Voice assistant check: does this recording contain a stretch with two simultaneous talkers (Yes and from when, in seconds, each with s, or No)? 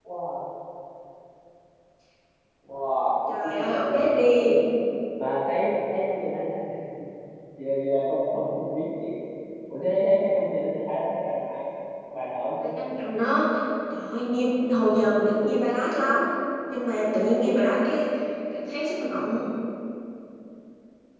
Yes, from 3.3 s